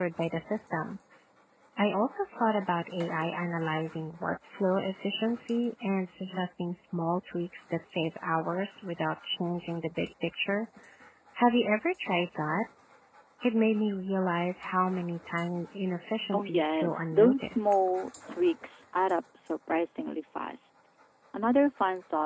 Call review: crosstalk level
present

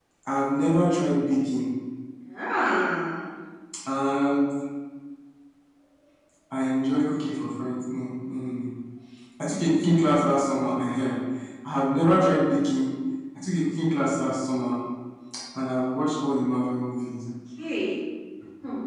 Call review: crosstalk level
none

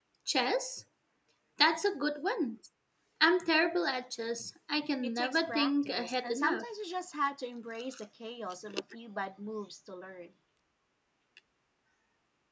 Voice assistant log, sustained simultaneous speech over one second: present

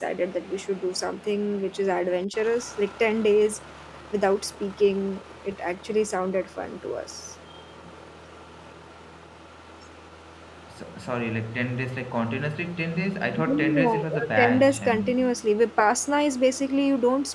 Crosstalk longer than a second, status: present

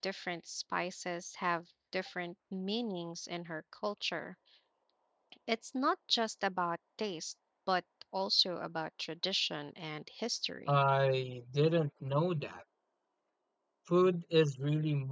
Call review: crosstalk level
none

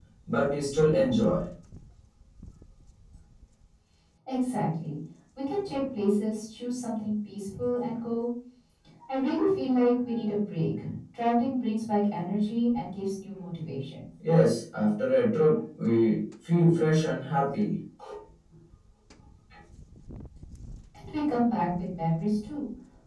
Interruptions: none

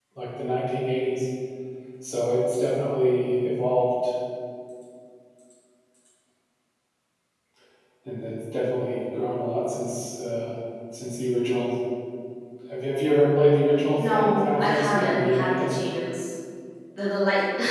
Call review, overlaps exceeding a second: present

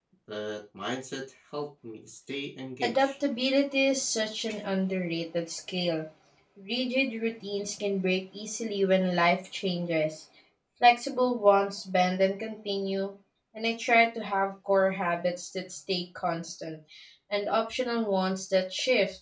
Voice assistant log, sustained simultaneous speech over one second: none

